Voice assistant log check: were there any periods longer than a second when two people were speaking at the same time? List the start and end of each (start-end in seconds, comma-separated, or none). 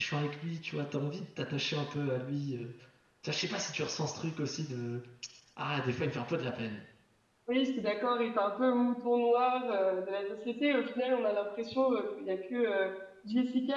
none